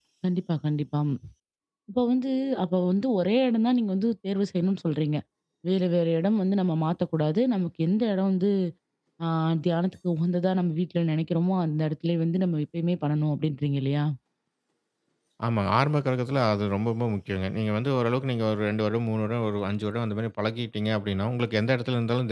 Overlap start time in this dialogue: none

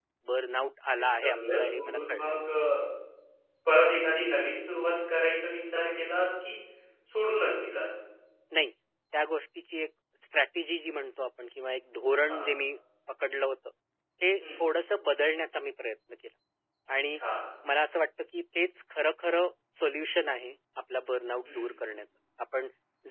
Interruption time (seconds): 1.0 s

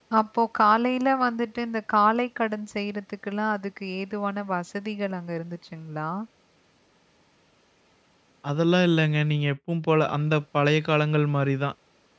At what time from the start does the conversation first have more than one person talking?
none

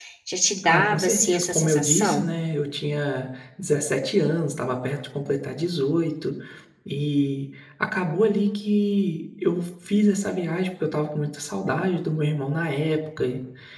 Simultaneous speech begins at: 0.6 s

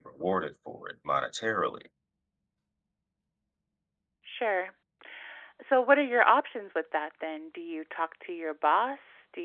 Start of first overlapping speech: none

